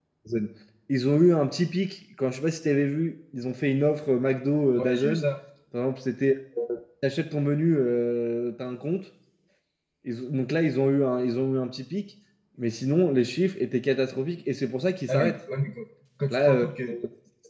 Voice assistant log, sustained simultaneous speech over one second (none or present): none